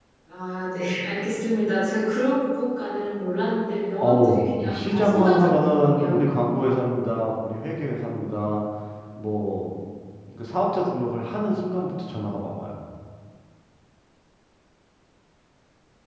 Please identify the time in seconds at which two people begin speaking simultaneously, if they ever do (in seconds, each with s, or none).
4.0 s